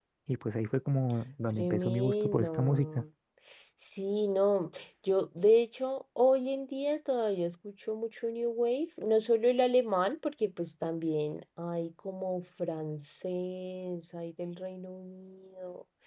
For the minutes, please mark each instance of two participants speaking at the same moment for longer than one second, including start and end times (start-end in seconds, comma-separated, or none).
1.5-3.0